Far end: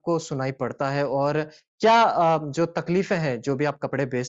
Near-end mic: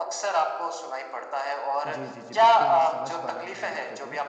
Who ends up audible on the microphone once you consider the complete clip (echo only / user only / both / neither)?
both